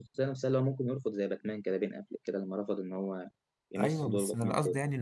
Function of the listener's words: taking over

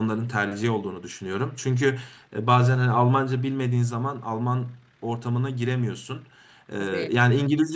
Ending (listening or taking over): listening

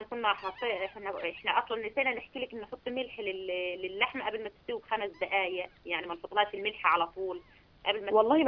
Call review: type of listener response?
taking over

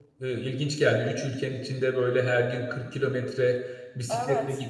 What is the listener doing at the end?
listening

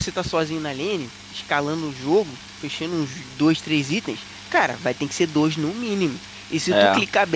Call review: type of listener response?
listening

